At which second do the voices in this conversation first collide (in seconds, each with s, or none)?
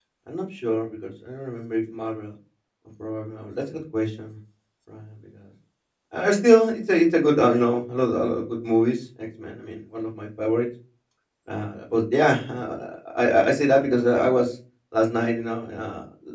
none